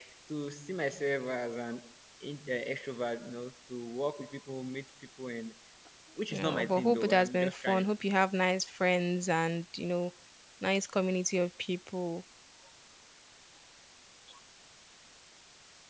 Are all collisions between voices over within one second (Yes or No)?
No